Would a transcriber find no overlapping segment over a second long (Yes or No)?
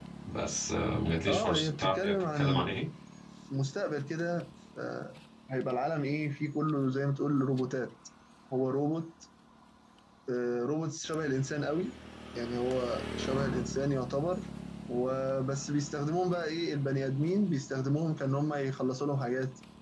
No